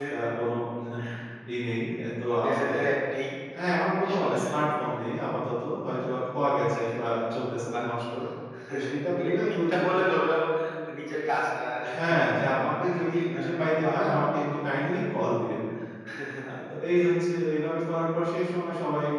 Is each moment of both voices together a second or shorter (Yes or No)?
No